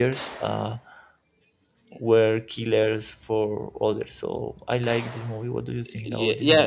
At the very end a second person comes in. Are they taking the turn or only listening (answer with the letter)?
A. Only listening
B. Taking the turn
B